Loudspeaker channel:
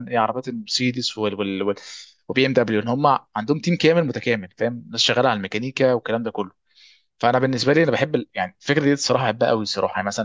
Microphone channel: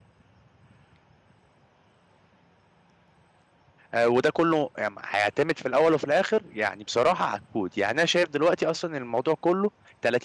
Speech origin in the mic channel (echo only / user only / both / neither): user only